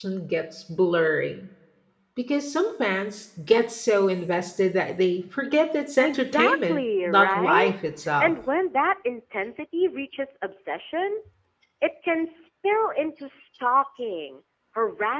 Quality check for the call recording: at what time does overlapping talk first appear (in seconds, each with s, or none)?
6.0 s